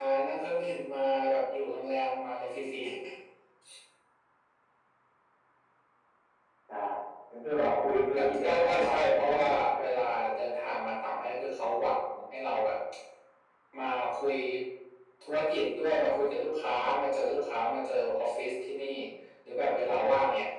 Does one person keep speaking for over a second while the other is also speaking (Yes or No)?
Yes